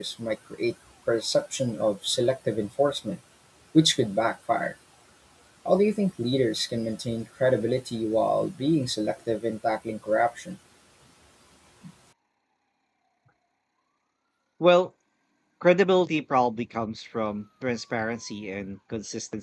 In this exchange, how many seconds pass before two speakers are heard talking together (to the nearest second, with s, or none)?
none